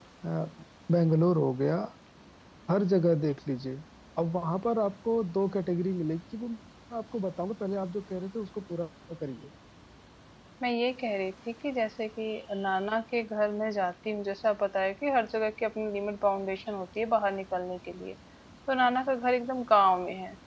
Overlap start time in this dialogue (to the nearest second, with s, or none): none